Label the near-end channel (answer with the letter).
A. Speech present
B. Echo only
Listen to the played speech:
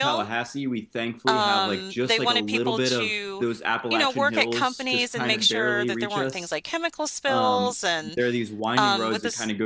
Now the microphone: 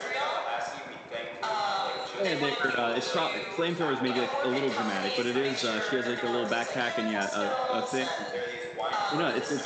A